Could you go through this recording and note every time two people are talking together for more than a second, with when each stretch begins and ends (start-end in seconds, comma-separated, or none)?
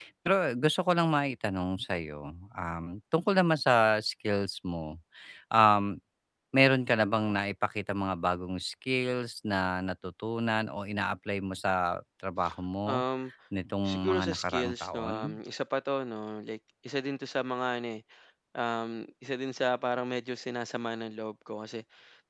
13.8-15.4